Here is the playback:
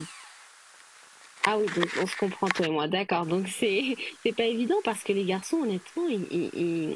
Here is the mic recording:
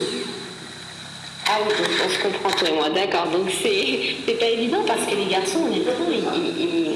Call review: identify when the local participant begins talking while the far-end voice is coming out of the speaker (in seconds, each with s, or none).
5.7 s